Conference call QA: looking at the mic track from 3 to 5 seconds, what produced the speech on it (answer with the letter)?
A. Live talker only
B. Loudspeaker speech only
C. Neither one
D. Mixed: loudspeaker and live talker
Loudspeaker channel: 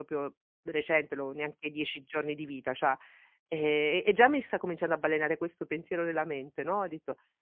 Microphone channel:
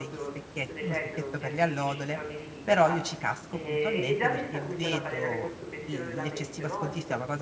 D